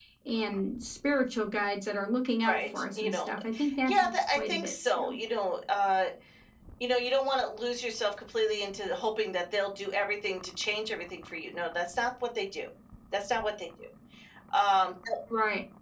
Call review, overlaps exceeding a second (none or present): present